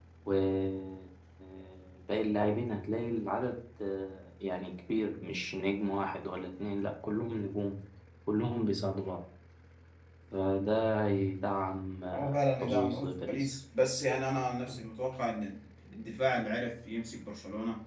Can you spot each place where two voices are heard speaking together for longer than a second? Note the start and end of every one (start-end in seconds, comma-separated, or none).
12.1-13.5